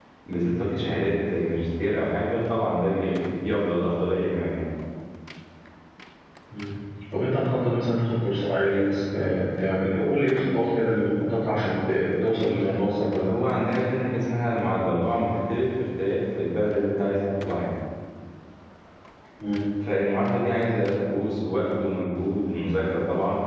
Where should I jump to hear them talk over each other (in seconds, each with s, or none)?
none